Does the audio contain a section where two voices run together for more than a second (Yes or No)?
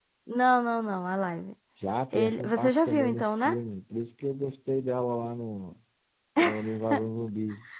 Yes